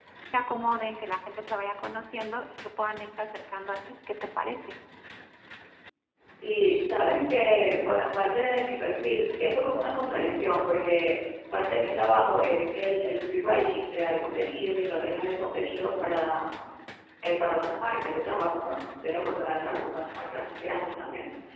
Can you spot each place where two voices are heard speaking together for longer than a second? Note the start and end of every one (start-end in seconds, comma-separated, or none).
none